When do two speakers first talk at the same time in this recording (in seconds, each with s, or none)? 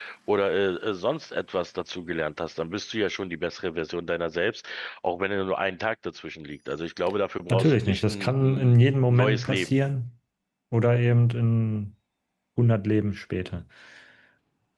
7.5 s